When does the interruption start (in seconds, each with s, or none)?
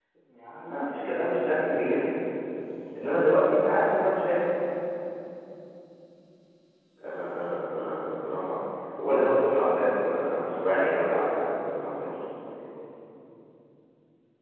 0.7 s